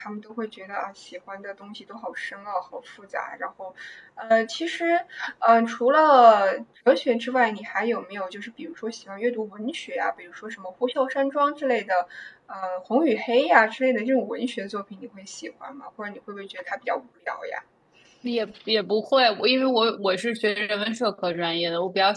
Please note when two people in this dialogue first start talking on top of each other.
none

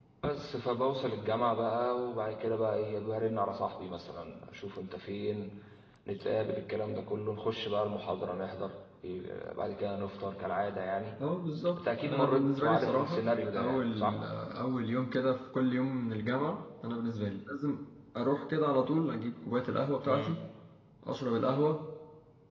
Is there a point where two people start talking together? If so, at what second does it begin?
12.0 s

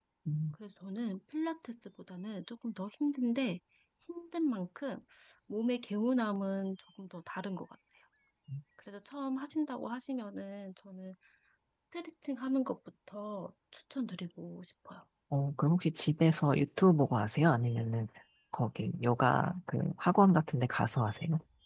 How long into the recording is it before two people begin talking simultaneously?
none

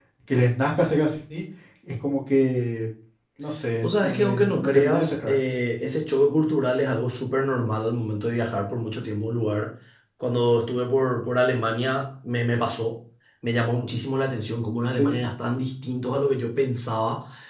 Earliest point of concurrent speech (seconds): 3.8 s

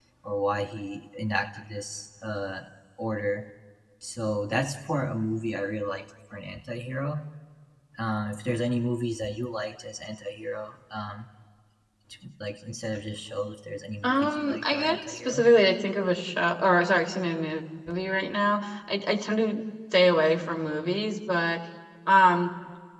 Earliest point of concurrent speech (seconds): 14.0 s

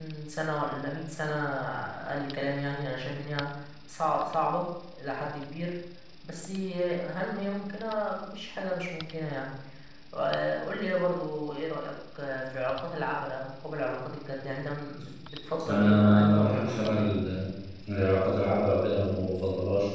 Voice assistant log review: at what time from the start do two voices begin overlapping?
15.7 s

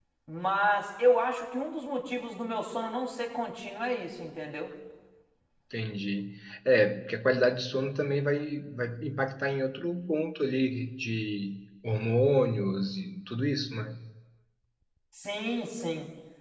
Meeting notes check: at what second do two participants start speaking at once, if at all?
none

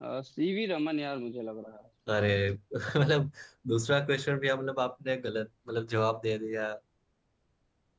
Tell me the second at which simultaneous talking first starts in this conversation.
none

